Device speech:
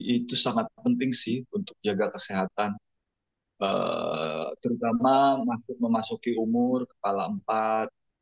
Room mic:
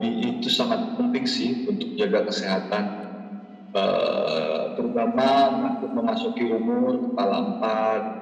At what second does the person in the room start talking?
none

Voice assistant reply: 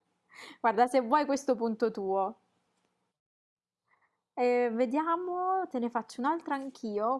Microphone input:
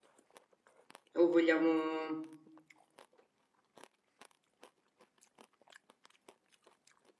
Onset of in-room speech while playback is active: 1 s

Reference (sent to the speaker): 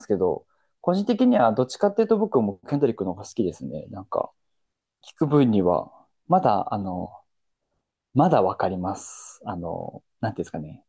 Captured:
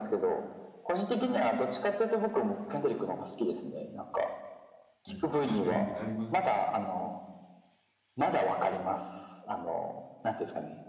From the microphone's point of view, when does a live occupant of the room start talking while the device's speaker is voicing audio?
5 s

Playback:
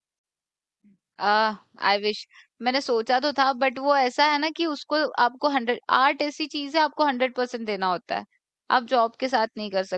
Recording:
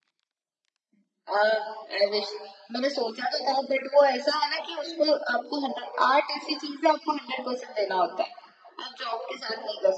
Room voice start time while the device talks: none

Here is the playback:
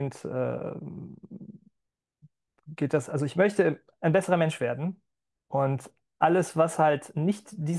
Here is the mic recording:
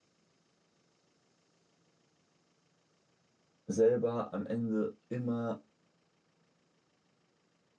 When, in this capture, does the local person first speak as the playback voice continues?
4 s

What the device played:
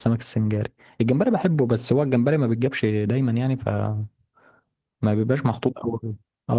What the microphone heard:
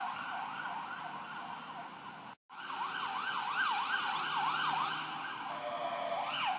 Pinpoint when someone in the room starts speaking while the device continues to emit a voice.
none

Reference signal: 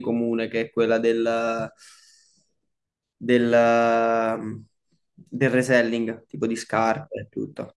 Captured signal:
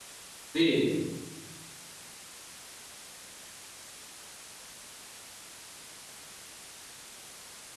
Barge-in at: 1 s

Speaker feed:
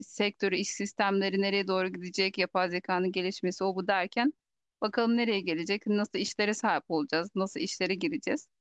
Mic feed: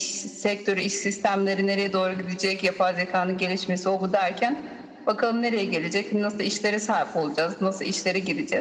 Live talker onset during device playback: none

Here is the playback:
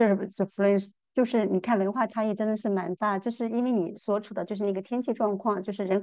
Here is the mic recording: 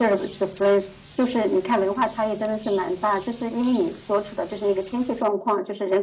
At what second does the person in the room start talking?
none

